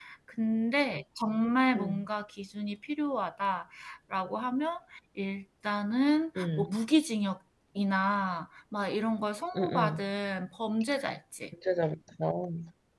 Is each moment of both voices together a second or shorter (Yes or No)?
Yes